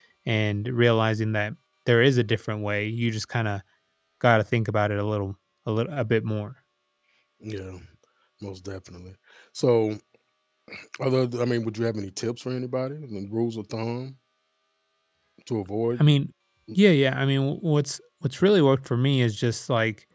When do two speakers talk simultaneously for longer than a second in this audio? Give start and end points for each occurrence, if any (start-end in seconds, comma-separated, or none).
none